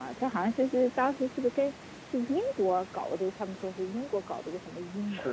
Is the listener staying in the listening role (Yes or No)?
No